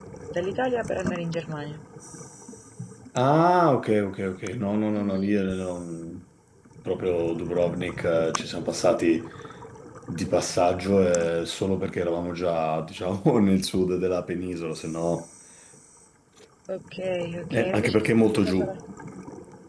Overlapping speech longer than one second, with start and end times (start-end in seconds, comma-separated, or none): 17.5-18.7